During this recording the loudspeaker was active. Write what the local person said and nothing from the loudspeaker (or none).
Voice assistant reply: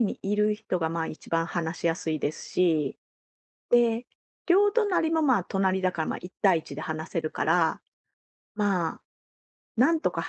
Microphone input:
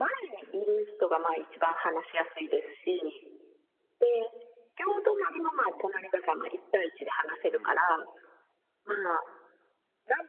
うん。